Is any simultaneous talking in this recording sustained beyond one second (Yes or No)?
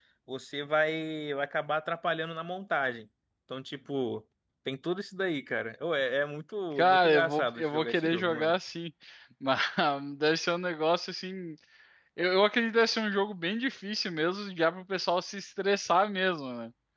Yes